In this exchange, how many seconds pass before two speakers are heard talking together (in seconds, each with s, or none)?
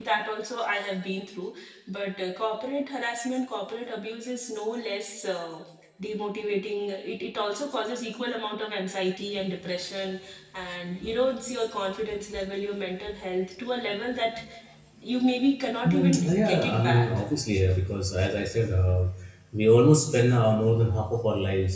15.9 s